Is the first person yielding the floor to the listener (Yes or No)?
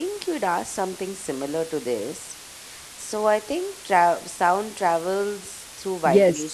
Yes